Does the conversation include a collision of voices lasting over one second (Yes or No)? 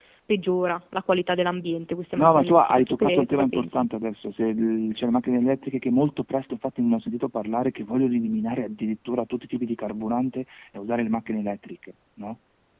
Yes